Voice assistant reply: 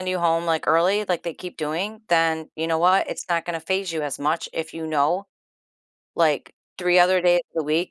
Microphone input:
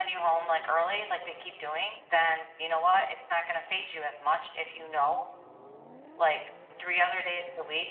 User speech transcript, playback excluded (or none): none